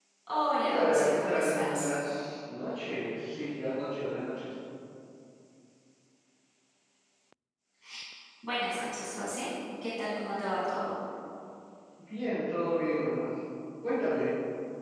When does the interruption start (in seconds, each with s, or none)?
0.7 s